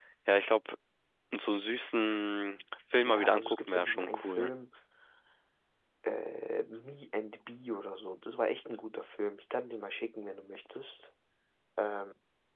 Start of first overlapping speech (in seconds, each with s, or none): 3.0 s